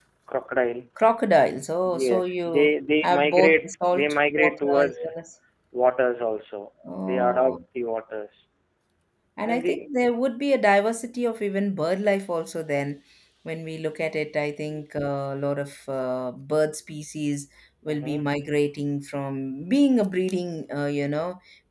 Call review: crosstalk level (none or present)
present